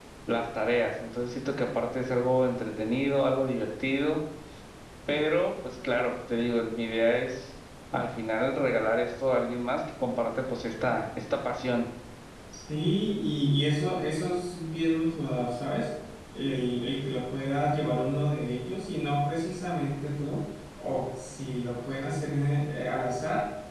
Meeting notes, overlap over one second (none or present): none